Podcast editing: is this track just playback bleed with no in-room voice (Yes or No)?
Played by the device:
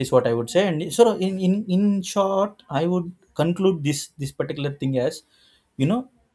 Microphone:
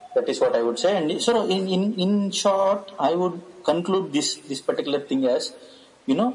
Yes